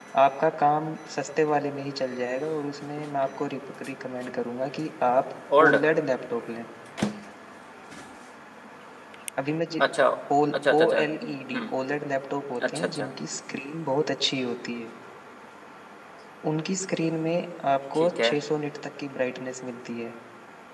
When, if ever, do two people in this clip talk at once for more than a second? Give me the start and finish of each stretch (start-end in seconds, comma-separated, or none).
10.5-11.8